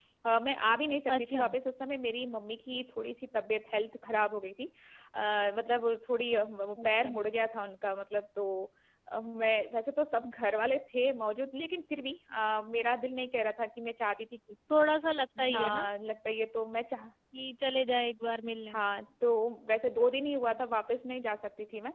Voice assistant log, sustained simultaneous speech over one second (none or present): none